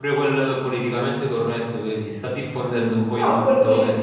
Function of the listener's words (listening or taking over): taking over